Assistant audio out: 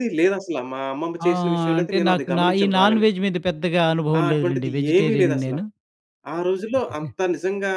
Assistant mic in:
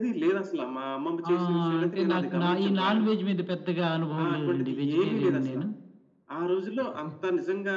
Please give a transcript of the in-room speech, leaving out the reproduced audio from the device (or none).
none